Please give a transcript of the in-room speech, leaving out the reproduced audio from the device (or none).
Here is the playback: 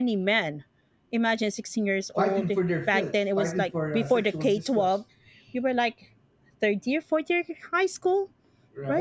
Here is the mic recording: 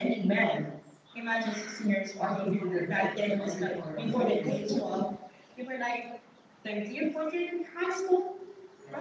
none